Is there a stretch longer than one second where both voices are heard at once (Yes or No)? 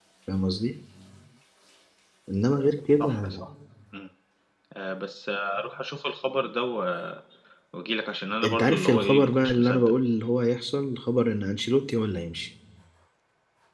Yes